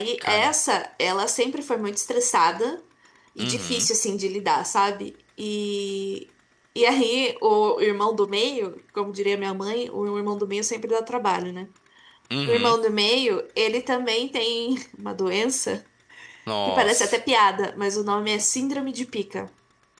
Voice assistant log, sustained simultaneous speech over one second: none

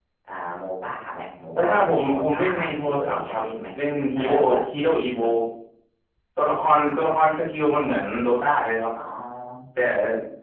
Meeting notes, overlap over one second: present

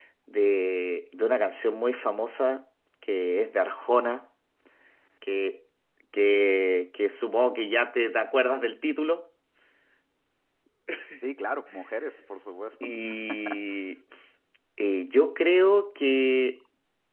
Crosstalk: none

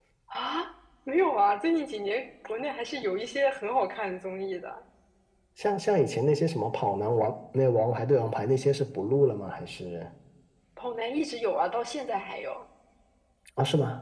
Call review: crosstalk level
none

